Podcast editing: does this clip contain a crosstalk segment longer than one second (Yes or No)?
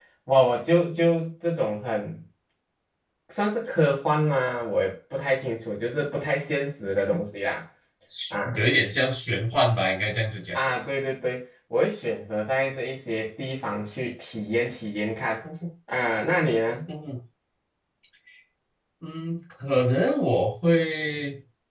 No